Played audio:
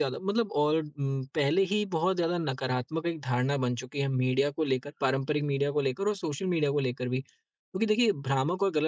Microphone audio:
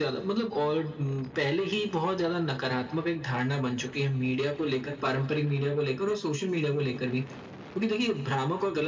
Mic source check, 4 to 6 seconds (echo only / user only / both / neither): echo only